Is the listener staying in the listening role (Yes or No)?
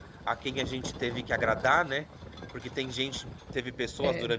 Yes